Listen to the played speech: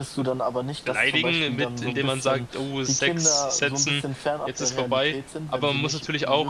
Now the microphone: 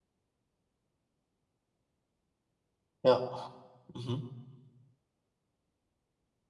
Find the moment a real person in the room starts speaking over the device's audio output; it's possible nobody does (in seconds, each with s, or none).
3.0 s